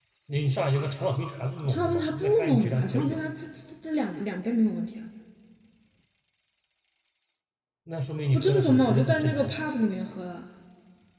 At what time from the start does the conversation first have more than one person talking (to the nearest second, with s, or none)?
2 s